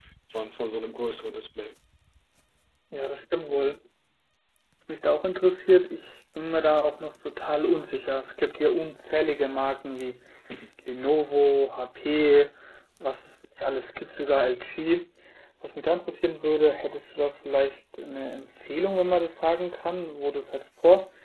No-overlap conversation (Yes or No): Yes